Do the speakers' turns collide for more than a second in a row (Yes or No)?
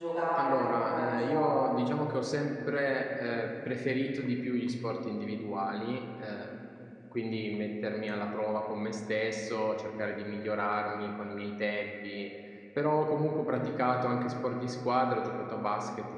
Yes